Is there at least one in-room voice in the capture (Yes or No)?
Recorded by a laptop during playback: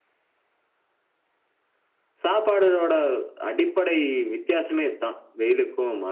Yes